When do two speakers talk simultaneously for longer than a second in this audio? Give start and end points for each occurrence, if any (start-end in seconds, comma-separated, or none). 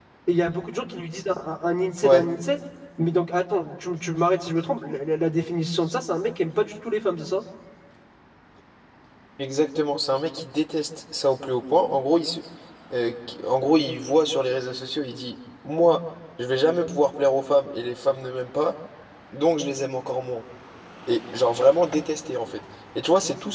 none